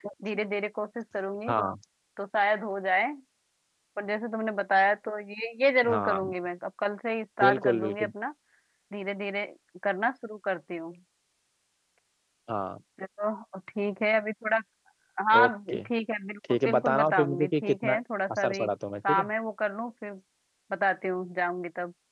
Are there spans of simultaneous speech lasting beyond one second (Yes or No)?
Yes